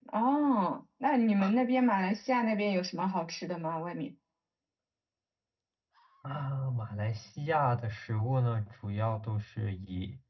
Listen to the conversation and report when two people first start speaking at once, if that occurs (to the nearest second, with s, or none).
none